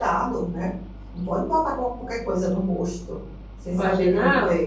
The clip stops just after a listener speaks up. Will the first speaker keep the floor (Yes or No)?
No